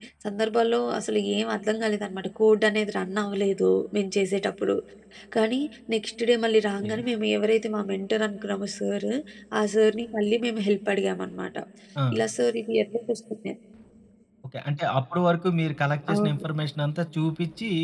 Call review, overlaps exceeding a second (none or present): none